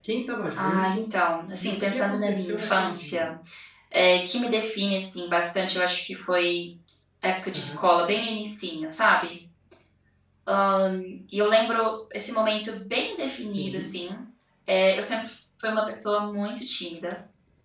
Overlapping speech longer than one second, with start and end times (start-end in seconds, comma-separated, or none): 1.6-3.2